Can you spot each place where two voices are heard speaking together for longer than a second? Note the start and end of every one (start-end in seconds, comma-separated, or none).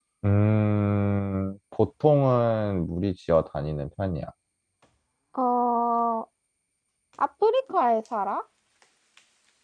none